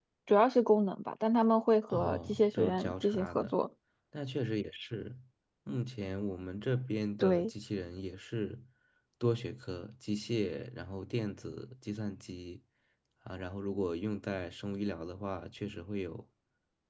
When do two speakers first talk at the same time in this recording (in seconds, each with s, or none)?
1.9 s